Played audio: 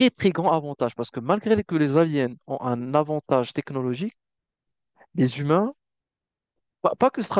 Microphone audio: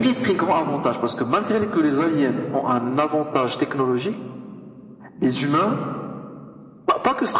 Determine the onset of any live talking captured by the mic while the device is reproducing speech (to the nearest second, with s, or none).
none